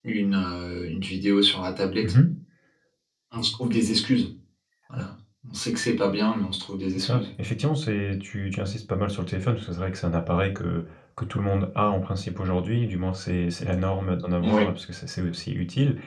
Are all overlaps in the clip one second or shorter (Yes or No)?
Yes